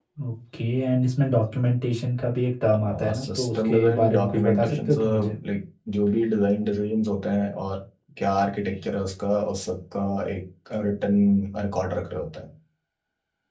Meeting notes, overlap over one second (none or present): present